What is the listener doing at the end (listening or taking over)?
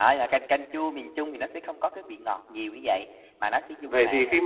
taking over